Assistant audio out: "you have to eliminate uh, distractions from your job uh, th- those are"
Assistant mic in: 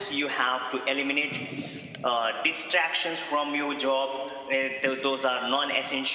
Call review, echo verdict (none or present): present